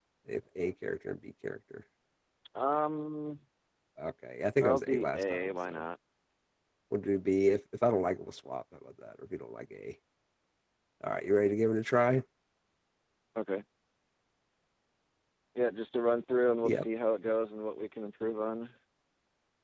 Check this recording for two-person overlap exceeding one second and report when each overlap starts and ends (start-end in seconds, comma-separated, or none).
4.6-5.8